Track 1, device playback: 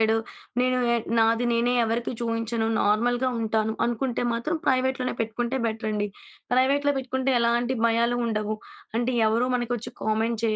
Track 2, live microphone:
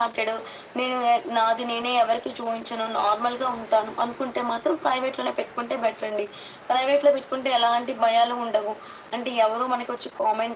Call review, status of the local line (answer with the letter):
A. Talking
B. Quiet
B